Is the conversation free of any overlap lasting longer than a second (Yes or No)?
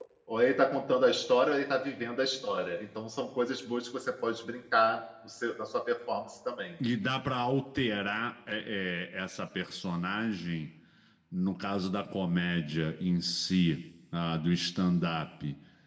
Yes